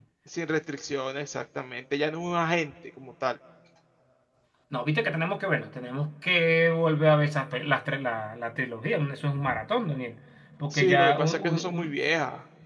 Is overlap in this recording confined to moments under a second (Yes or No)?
No